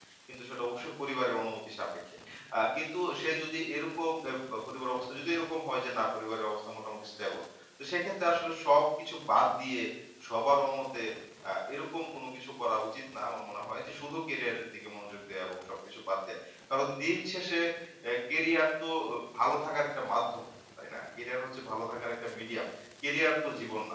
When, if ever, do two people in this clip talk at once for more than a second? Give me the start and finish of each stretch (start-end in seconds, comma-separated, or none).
none